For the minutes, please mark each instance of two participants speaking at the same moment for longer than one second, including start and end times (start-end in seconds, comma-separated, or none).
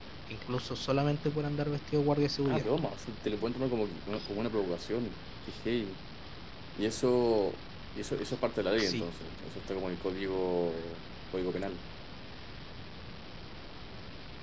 none